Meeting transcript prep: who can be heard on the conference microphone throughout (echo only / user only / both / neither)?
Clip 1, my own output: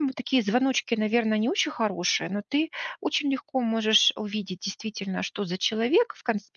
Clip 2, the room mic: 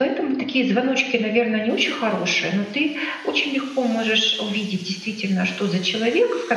echo only